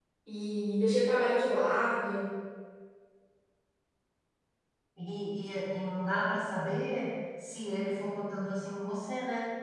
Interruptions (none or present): none